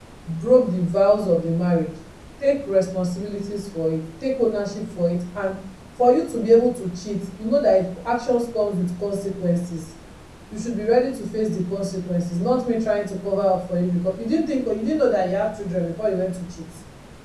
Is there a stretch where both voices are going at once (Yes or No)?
No